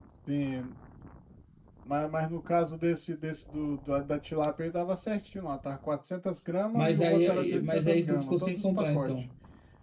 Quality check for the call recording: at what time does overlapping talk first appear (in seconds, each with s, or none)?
6.7 s